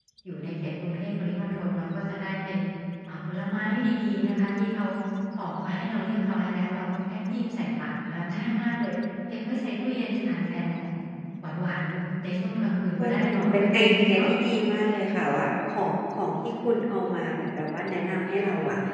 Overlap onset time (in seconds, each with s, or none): 13.0 s